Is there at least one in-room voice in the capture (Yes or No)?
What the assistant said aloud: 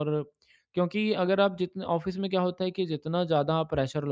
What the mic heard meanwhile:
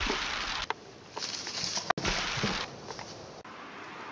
No